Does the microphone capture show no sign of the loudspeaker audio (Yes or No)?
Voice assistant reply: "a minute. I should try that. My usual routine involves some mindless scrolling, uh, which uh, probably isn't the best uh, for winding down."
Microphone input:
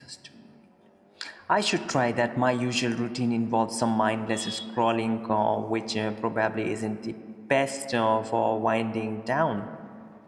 No